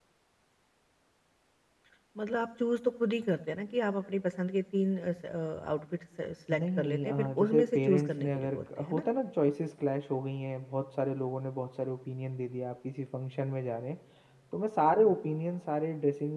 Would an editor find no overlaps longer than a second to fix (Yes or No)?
No